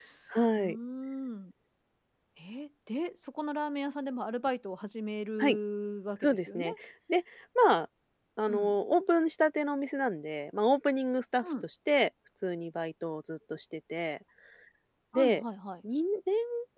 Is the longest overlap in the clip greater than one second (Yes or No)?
No